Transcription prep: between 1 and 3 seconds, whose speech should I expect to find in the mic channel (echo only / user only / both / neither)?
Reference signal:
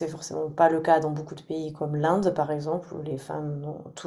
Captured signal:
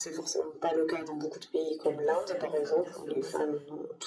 both